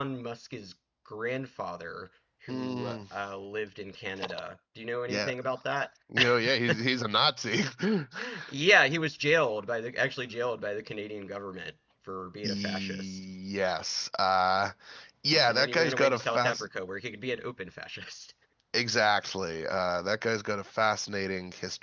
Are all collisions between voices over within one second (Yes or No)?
No